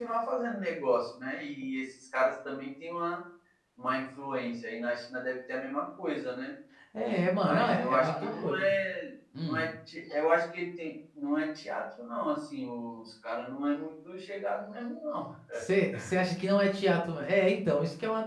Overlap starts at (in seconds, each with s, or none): 7.4 s